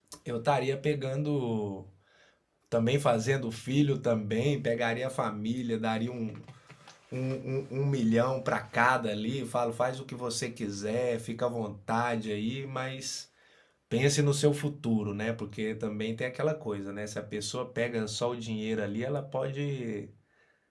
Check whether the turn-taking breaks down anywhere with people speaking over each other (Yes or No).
No